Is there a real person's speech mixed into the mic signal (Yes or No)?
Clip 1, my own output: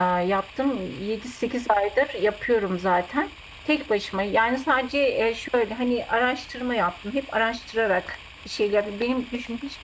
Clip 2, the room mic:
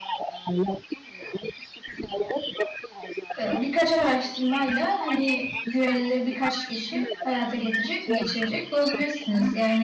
Yes